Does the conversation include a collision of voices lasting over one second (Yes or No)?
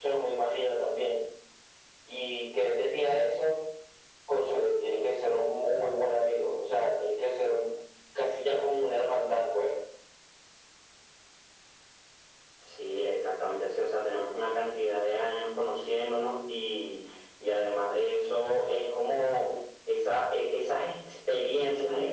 No